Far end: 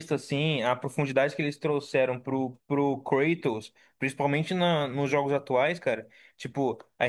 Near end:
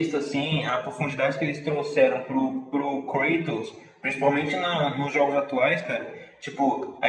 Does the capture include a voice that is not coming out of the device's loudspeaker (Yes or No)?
No